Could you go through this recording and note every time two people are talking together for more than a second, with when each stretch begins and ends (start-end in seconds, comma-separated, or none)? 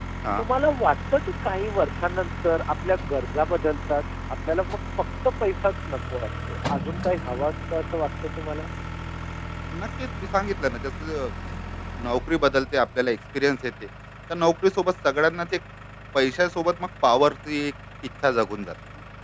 none